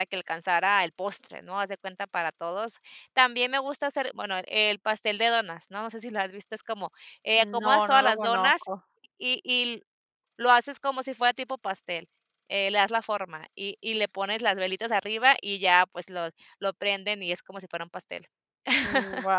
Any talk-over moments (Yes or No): Yes